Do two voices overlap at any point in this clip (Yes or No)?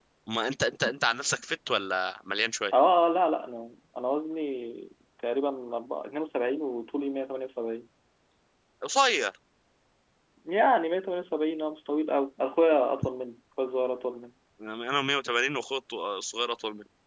No